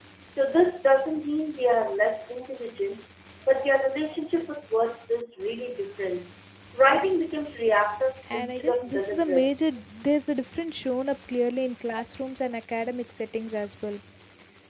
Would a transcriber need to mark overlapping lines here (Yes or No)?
Yes